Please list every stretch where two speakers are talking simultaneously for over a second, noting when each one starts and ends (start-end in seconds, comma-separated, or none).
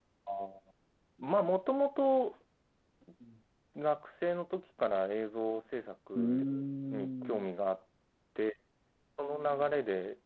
none